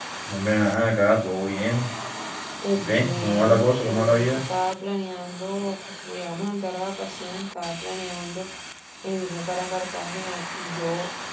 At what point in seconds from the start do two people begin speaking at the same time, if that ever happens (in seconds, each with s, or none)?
2.8 s